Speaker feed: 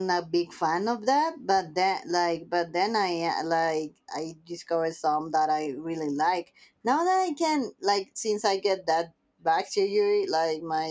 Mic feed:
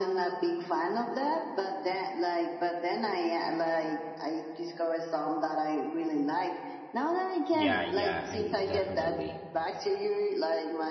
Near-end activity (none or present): present